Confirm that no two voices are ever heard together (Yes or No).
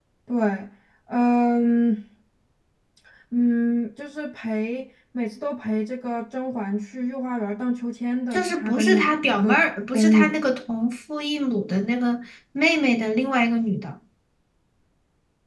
No